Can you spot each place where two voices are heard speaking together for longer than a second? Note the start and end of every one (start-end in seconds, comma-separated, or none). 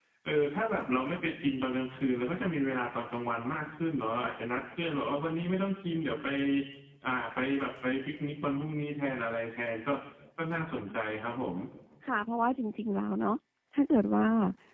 none